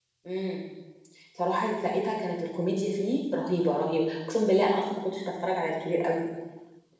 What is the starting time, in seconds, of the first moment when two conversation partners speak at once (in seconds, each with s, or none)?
none